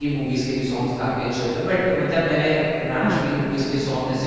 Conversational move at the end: listening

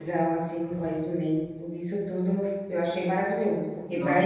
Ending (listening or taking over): listening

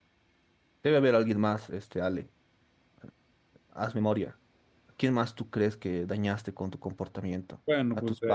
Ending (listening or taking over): taking over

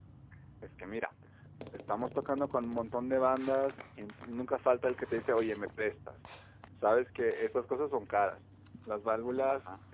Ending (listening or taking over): listening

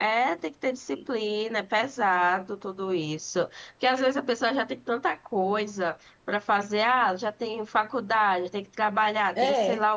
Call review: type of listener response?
listening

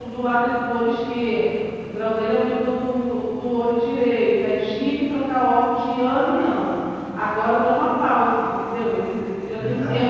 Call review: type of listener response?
listening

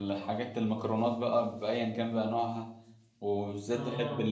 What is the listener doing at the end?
listening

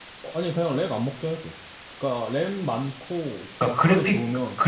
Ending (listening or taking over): taking over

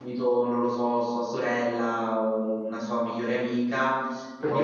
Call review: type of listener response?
listening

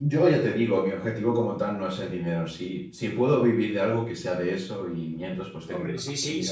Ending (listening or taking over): taking over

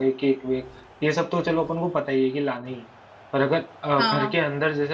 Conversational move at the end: listening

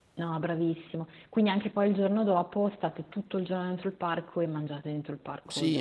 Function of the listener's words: taking over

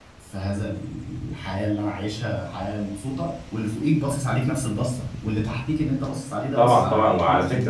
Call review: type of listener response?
taking over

